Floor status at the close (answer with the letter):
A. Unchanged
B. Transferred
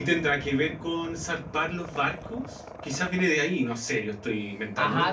B